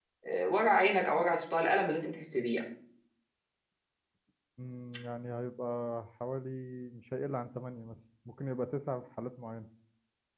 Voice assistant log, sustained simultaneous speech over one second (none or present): none